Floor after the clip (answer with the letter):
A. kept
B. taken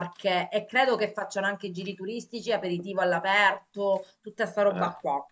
A